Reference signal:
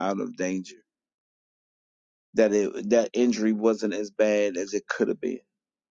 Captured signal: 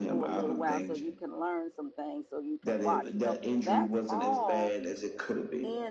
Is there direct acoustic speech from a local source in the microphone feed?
Yes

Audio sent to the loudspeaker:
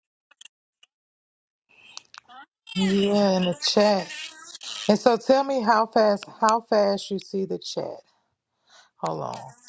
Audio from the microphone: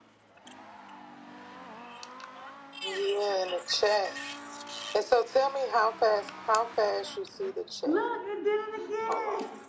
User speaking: Yes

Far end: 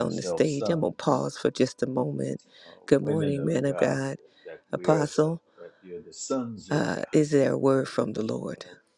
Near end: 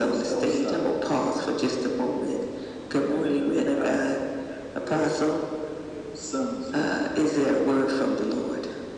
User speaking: No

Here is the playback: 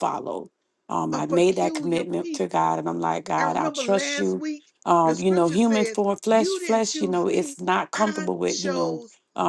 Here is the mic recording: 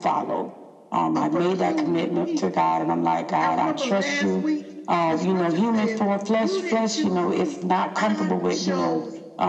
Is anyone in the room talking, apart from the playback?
No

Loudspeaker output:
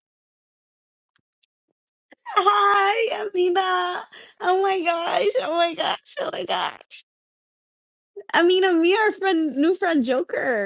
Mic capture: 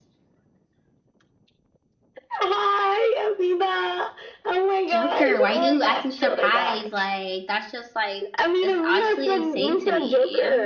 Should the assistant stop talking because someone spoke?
Yes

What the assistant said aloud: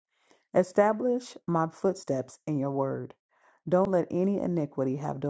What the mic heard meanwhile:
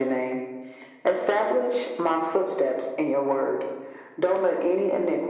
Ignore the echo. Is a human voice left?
No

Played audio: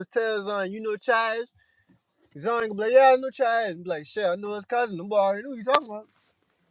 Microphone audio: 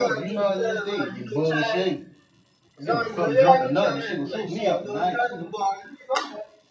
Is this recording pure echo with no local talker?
No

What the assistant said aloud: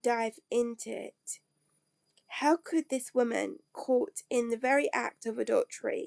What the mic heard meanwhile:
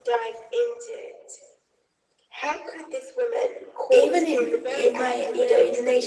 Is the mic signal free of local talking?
No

